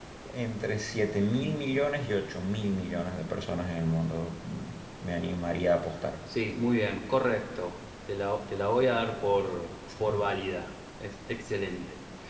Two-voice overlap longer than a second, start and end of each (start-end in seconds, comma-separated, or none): none